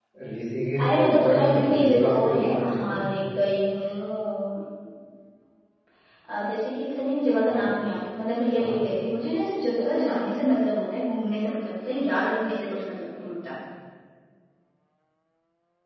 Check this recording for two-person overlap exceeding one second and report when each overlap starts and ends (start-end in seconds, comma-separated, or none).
0.8-3.0